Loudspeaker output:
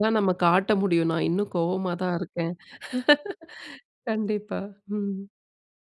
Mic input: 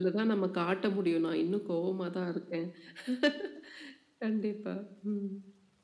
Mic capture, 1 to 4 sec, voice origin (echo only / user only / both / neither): echo only